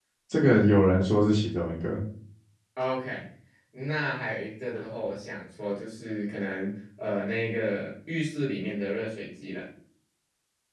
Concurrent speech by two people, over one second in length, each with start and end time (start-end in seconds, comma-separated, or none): none